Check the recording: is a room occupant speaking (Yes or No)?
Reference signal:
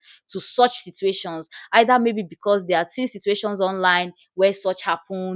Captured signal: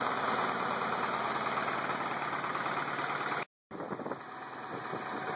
No